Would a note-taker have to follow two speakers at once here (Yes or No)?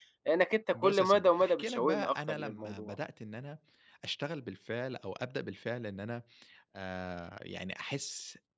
Yes